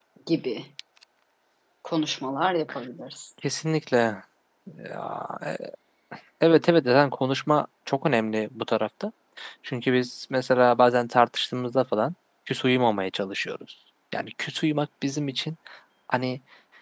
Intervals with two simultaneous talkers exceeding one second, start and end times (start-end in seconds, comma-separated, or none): none